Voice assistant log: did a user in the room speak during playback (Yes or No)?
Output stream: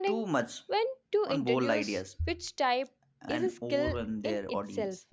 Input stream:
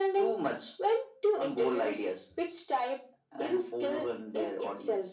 No